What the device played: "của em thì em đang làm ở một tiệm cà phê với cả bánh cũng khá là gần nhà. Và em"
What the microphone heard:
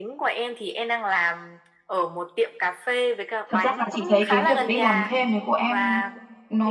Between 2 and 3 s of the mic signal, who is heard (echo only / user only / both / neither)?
echo only